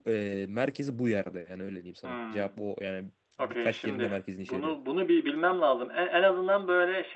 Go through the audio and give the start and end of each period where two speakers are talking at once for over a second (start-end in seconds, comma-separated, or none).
3.4-4.7